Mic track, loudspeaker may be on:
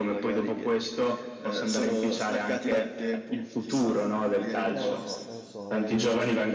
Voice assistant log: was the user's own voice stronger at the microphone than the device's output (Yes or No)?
No